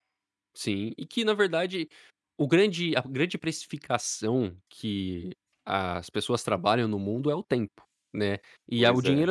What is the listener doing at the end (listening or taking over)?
listening